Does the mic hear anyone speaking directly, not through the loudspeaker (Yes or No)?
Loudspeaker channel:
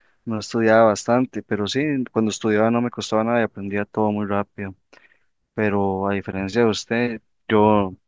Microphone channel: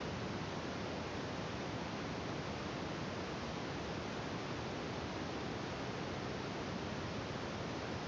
No